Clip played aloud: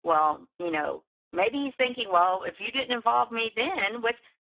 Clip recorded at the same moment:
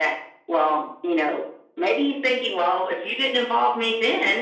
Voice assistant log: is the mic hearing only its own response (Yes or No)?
Yes